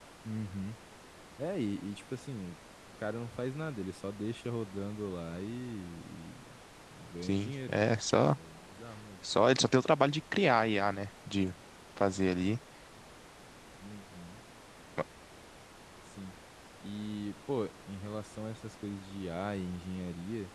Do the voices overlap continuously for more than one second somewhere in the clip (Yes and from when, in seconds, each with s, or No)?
No